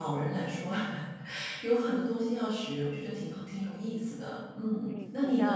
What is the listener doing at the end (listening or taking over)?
taking over